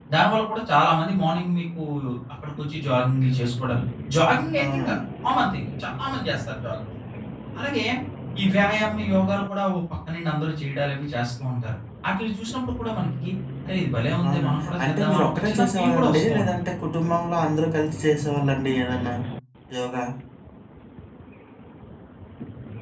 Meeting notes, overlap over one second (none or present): present